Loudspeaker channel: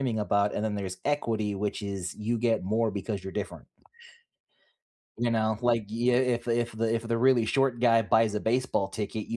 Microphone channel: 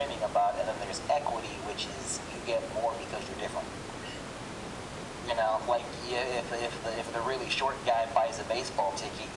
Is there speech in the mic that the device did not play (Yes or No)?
No